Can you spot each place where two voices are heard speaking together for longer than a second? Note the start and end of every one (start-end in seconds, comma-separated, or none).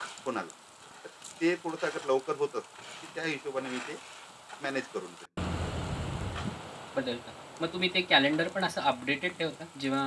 none